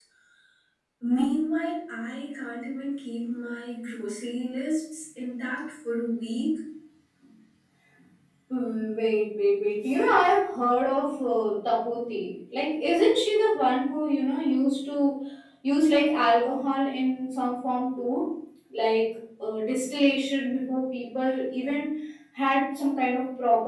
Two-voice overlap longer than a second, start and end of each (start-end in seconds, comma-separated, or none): none